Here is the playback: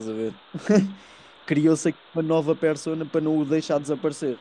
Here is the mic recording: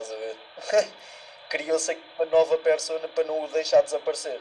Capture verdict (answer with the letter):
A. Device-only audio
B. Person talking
A